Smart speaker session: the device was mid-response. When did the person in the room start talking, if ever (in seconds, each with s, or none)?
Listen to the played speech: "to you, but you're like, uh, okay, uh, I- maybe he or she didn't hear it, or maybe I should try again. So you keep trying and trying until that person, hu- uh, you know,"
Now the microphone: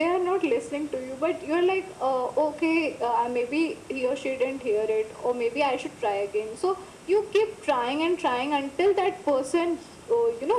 none